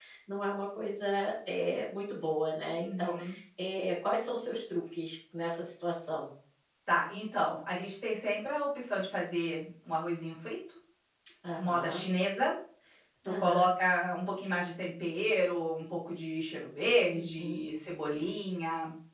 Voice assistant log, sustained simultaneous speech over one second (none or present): none